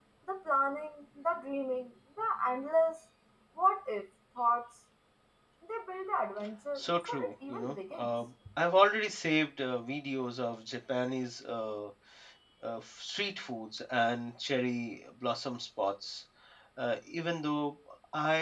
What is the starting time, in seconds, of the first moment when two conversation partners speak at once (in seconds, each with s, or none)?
6.8 s